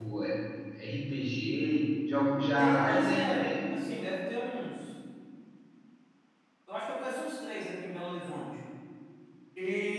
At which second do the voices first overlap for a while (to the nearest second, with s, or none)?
3 s